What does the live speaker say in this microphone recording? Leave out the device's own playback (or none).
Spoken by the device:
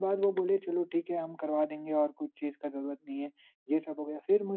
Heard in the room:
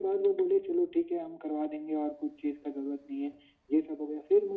none